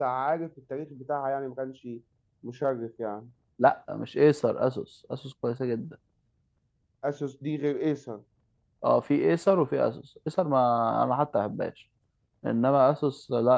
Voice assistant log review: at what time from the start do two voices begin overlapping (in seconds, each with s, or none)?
none